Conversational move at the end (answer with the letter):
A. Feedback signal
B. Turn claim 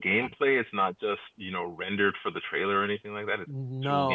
B